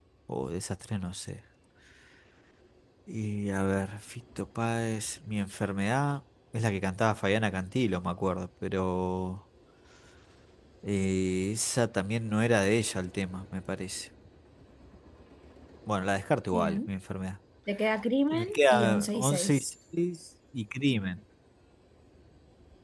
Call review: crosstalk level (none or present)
present